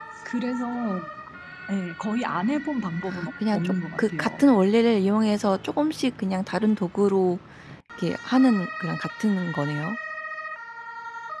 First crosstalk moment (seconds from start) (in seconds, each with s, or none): 3.1 s